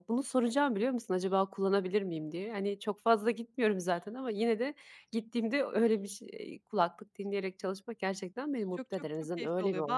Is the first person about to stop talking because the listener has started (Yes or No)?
Yes